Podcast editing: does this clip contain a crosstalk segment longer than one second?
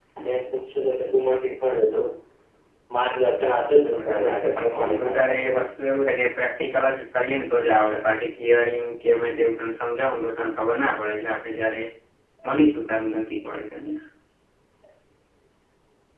Yes, from 3.9 s

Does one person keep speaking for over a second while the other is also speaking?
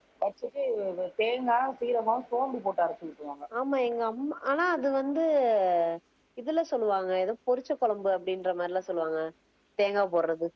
No

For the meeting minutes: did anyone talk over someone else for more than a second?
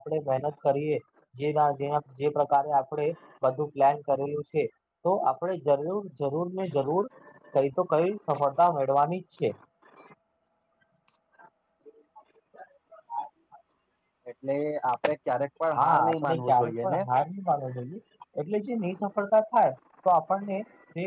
Yes, from 15.8 s

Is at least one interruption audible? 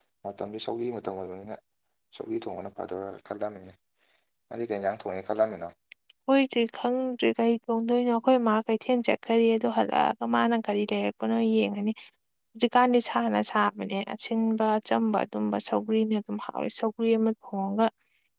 No

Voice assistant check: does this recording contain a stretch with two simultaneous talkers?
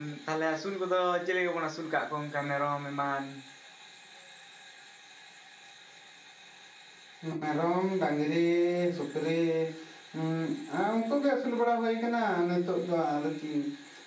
No

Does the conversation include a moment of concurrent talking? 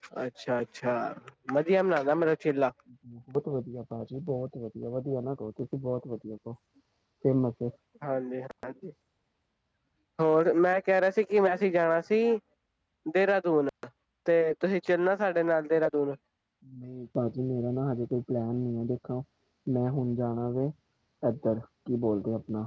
No

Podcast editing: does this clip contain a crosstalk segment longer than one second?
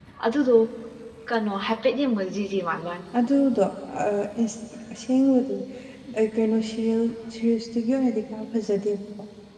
No

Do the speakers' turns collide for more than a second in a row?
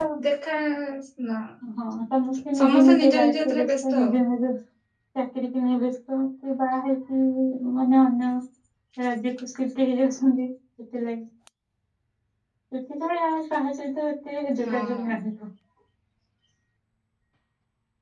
Yes, from 2.6 s

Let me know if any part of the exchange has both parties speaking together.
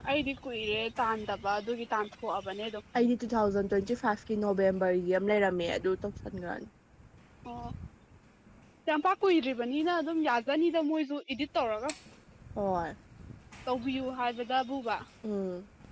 No

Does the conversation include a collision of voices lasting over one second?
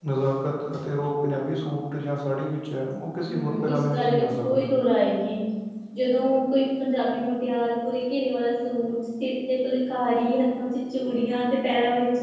Yes, from 3.2 s

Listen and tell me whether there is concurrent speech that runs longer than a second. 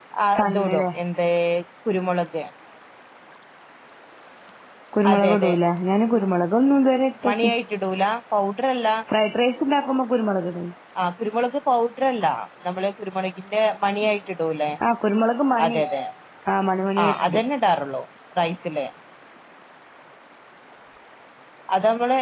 No

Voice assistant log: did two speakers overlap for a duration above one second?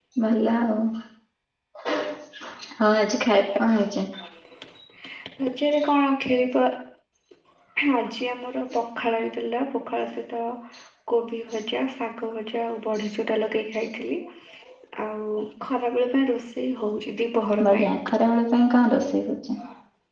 No

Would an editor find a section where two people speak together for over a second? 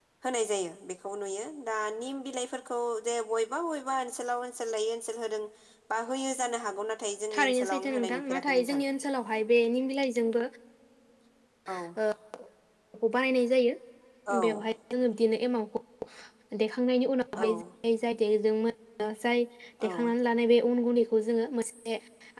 Yes, from 7.4 s

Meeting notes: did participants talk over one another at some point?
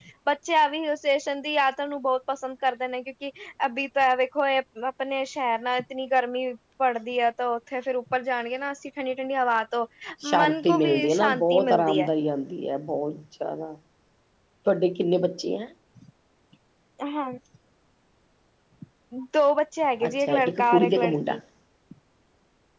Yes, from 10.3 s

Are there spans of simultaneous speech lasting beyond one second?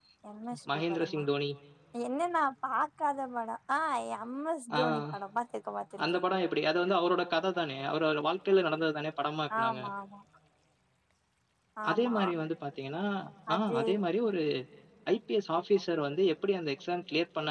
No

